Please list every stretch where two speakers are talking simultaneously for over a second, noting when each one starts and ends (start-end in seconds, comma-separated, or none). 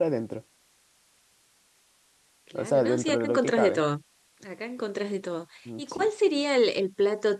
2.5-3.8